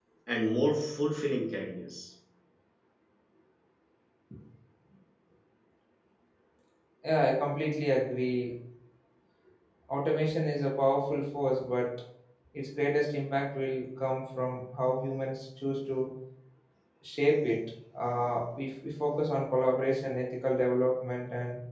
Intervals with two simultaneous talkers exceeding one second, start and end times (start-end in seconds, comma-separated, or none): none